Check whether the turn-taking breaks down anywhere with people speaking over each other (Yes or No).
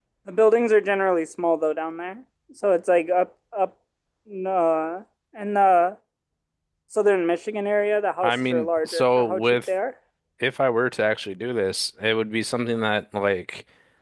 Yes